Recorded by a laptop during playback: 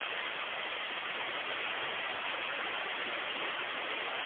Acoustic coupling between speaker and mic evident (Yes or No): No